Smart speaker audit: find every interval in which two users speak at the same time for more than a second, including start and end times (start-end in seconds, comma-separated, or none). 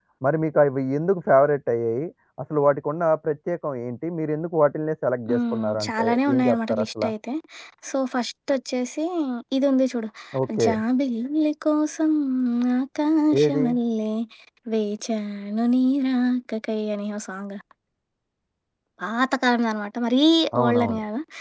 5.3-7.0